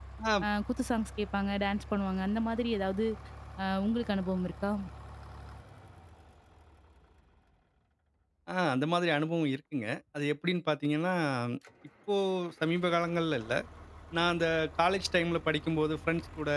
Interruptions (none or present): none